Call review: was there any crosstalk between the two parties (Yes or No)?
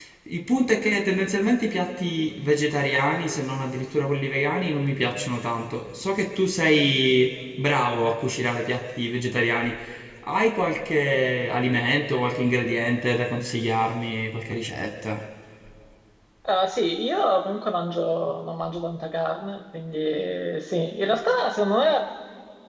No